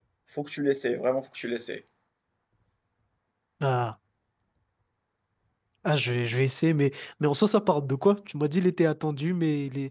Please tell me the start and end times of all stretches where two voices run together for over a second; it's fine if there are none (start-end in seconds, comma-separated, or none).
none